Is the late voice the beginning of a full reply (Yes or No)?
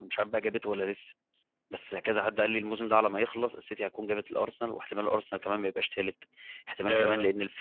No